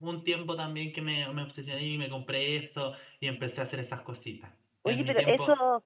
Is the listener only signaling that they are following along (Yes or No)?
No